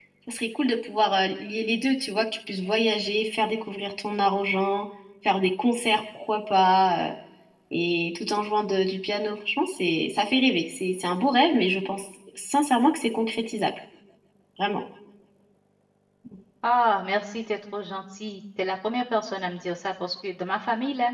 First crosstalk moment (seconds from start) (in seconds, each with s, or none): none